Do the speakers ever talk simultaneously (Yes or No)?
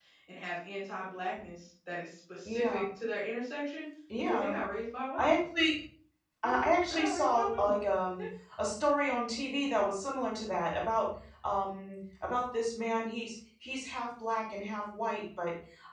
Yes